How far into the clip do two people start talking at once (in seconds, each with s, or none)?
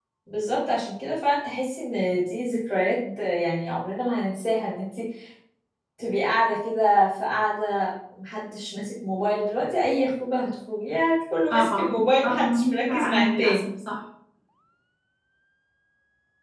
11.5 s